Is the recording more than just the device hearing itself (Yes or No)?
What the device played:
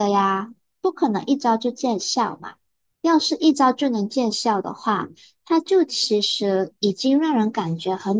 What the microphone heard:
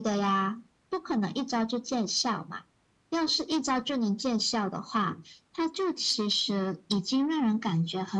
No